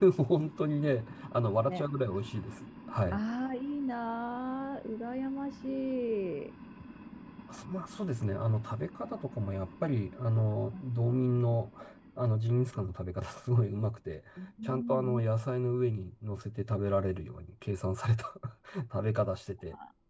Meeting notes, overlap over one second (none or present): none